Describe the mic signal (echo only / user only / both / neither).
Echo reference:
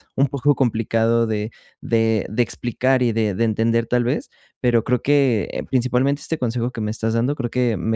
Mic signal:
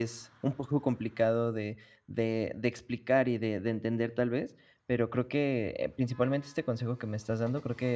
echo only